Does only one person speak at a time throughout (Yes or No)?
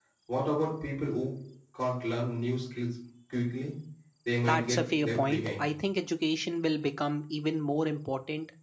No